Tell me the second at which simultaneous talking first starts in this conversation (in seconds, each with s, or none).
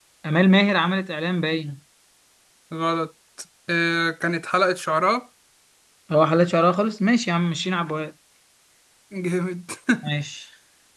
none